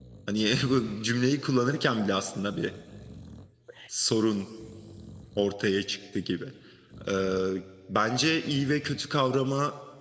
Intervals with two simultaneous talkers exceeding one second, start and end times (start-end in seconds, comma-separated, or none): none